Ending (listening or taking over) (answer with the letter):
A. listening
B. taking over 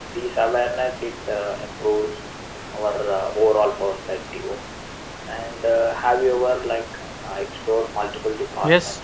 B